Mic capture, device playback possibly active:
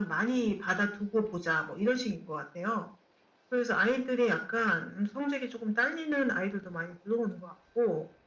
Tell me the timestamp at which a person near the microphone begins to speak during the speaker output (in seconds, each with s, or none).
none